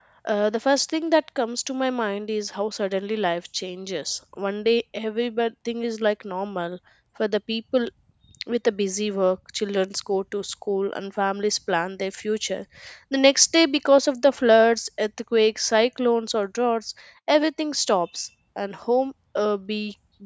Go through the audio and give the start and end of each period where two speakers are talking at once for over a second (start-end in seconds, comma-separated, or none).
none